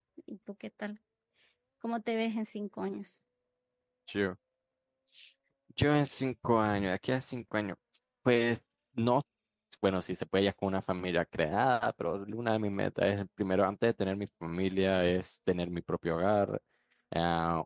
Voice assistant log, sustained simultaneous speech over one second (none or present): none